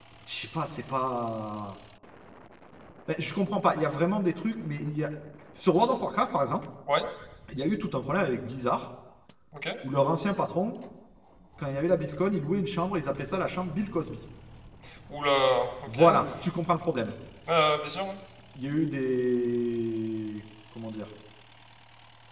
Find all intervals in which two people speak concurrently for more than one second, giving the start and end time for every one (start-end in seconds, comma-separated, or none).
none